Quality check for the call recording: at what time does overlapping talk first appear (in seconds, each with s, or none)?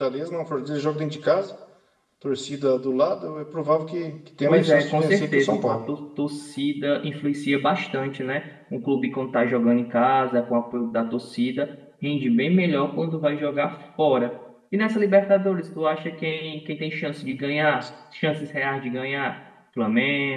4.5 s